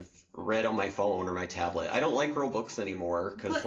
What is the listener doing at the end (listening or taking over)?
taking over